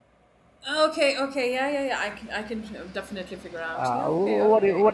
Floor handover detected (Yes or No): Yes